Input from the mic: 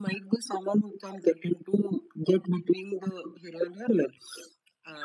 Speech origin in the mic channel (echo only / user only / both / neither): echo only